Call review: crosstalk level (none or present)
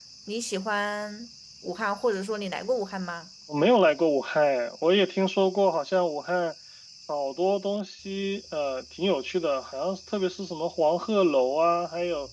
none